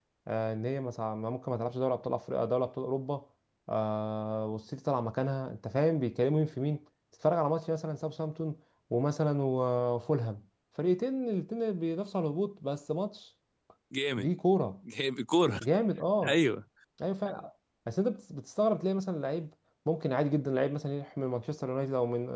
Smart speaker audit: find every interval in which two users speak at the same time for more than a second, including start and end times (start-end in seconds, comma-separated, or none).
none